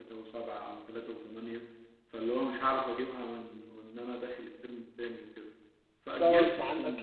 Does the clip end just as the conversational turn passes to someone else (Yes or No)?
Yes